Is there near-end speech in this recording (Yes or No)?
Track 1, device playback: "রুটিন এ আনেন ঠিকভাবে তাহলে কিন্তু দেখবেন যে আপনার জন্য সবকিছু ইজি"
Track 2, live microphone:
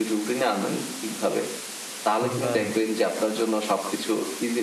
Yes